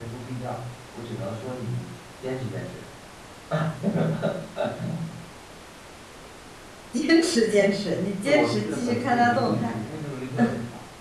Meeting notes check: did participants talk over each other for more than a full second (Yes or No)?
Yes